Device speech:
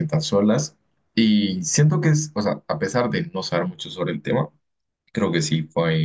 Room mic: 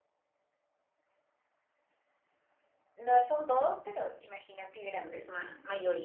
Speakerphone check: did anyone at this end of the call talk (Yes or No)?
Yes